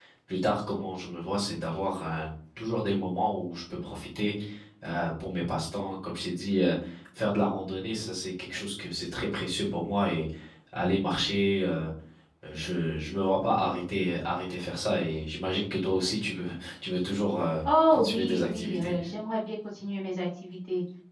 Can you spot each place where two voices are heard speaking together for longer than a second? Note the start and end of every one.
17.7-18.9

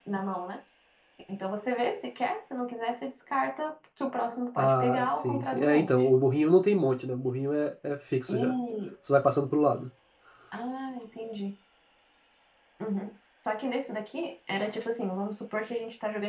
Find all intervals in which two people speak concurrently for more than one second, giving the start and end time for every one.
4.6-5.9

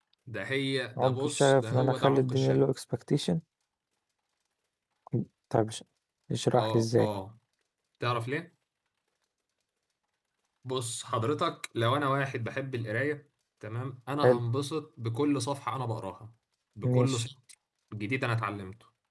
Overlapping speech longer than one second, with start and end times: 1.0-2.6

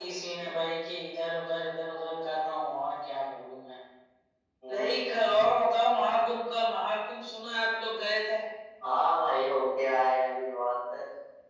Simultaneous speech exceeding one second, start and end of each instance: none

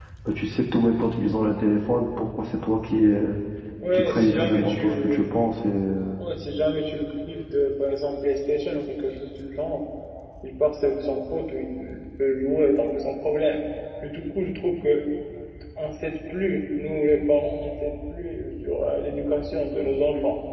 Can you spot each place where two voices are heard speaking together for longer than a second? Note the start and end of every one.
3.9-5.2

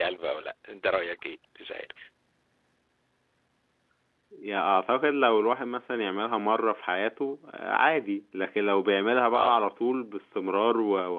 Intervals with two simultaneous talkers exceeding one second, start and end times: none

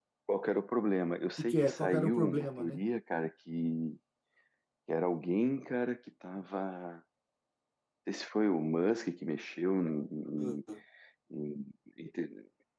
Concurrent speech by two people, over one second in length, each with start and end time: 1.4-2.8

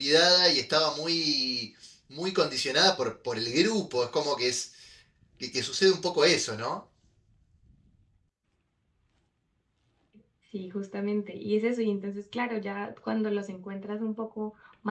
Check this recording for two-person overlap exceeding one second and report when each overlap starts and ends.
none

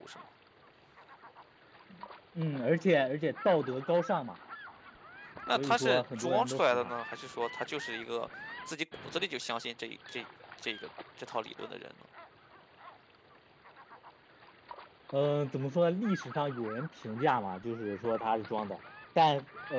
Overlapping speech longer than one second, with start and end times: 5.5-6.9

